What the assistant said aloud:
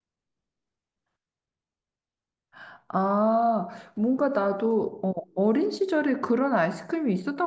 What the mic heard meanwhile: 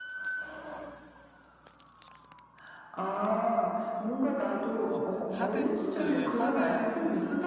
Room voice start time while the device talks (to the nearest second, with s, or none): 5 s